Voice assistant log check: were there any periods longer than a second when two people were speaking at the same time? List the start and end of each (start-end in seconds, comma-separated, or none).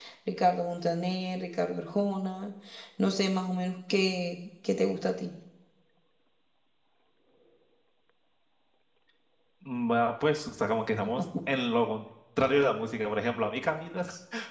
none